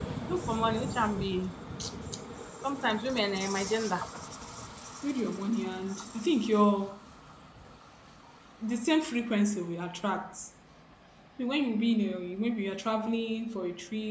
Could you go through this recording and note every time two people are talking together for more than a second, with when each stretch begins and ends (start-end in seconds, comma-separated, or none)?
none